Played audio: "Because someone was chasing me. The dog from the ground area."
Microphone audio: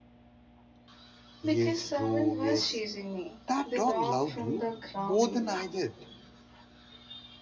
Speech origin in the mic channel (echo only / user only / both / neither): both